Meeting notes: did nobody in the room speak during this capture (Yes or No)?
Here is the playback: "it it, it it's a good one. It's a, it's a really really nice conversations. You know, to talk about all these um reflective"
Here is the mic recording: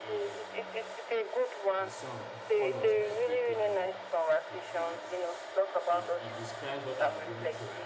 No